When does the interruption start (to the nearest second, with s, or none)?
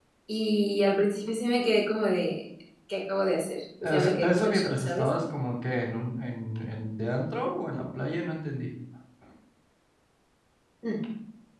4 s